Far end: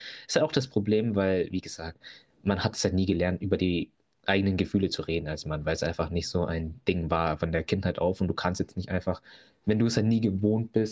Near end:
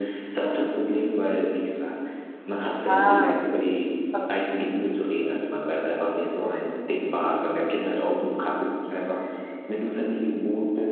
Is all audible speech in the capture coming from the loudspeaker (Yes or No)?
No